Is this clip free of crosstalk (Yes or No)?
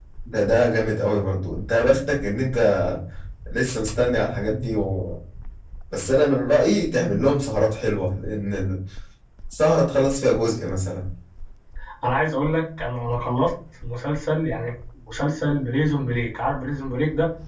Yes